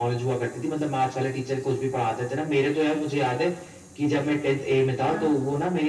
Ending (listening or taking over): listening